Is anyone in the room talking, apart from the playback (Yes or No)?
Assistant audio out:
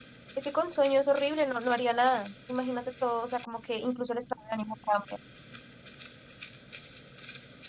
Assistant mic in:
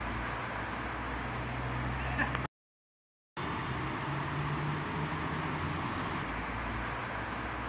No